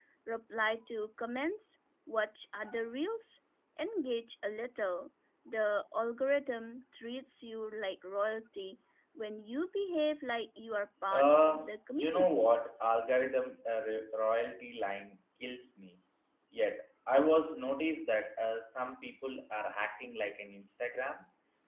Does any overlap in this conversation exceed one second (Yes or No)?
Yes